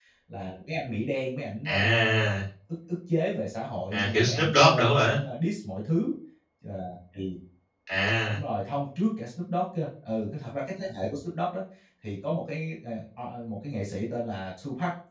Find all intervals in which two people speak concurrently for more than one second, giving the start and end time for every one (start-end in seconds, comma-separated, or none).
3.9-5.2